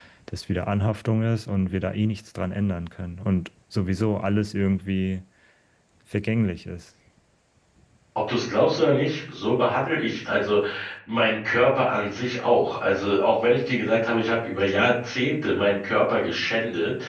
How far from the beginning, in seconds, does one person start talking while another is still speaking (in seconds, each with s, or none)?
none